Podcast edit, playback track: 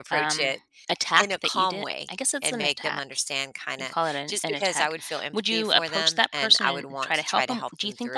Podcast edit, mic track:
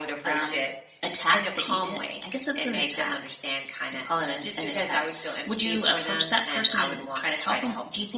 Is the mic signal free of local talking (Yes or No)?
Yes